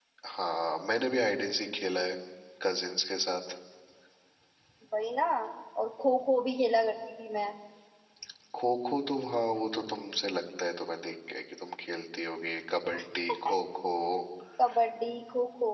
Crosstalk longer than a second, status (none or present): none